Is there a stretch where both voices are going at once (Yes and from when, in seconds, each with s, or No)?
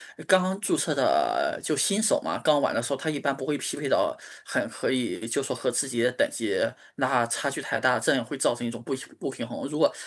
No